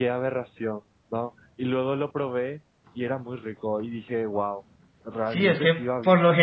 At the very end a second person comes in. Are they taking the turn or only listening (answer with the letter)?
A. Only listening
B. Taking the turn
B